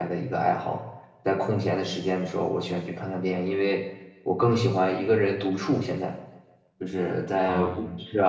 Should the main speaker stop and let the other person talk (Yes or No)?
No